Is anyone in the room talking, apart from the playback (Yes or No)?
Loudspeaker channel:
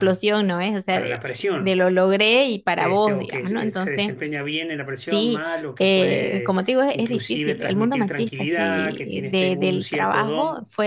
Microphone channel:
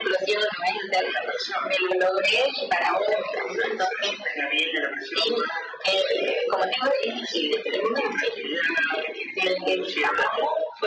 No